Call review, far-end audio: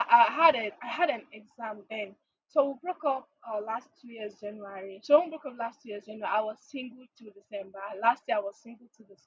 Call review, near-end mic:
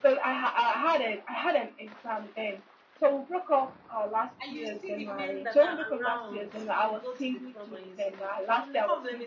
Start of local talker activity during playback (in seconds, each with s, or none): 4.4 s